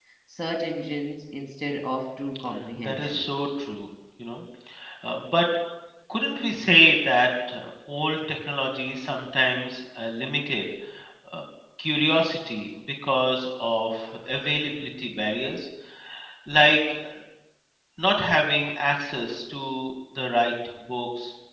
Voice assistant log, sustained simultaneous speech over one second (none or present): none